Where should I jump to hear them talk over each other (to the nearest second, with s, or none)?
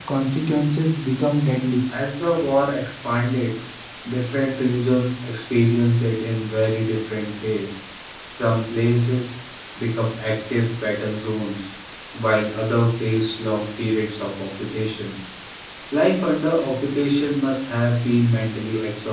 none